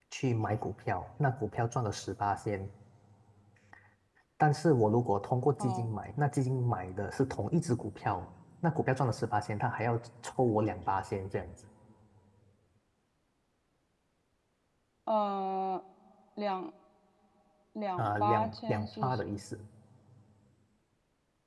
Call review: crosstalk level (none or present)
present